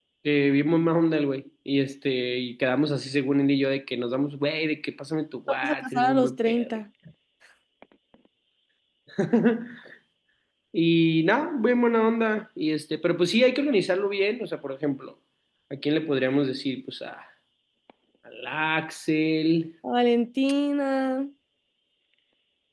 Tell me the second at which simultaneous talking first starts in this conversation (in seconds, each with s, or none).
5.5 s